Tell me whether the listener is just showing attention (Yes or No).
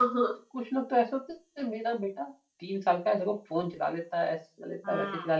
Yes